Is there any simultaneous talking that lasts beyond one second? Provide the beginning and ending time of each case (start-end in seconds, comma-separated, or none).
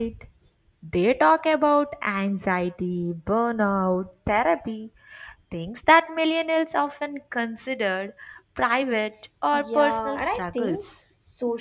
9.5-10.8